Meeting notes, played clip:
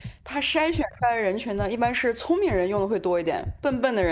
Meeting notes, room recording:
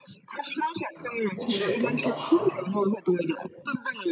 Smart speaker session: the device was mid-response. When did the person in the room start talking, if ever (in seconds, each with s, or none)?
0.9 s